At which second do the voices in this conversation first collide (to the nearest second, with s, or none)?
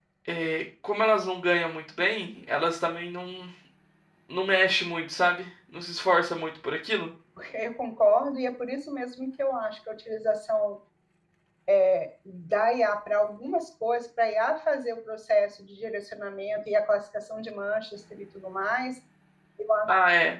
none